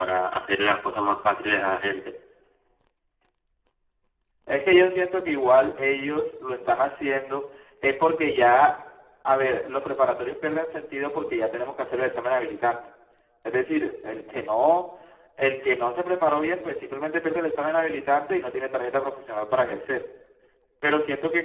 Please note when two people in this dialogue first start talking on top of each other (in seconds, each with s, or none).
none